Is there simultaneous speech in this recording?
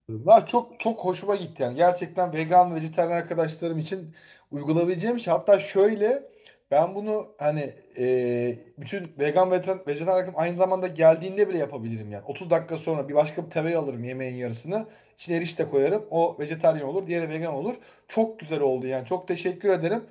No

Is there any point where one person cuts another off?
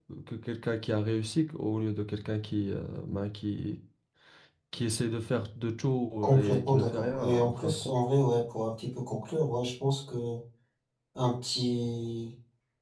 Yes, from 6.2 s

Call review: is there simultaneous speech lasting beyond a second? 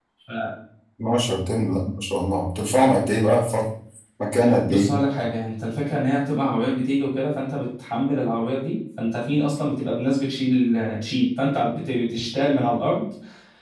No

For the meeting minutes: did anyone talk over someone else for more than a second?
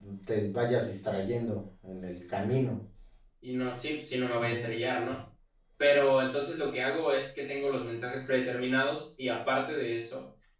No

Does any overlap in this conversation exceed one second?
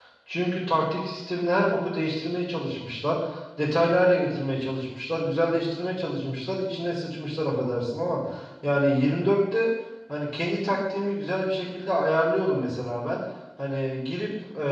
No

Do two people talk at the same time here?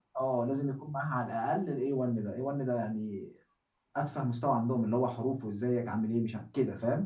No

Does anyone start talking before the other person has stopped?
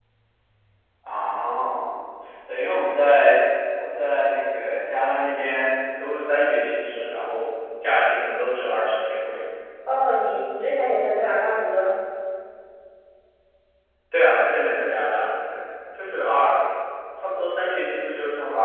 No

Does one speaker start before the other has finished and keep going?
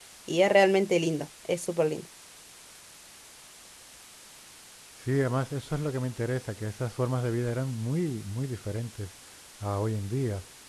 No

